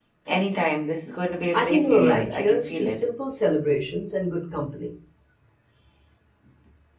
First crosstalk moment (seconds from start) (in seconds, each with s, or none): 1.5 s